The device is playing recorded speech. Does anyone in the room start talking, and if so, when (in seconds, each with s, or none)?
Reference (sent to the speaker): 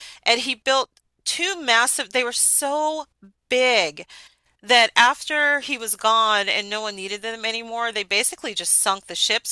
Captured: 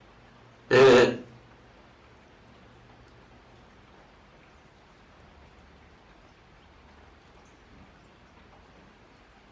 0.7 s